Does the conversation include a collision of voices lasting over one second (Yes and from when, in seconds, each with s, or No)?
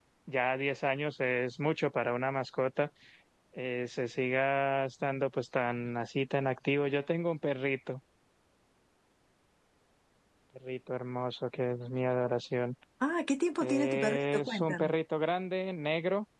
Yes, from 13.6 s